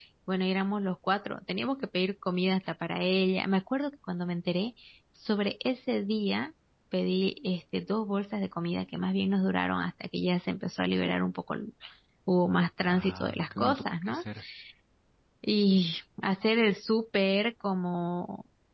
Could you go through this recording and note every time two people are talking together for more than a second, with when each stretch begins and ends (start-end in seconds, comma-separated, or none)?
12.8-14.2